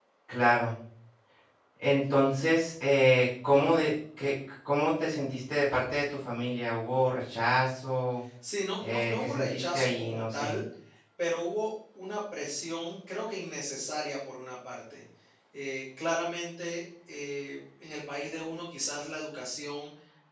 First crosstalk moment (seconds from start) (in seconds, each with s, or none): 8.8 s